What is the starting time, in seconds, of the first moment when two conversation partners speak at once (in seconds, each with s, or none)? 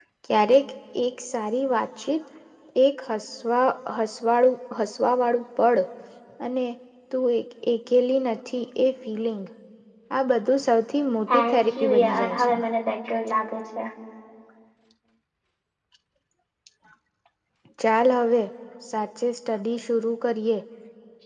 11.3 s